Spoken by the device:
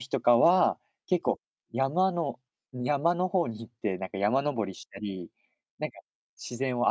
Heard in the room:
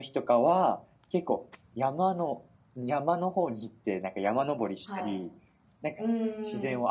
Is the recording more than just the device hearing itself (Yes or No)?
Yes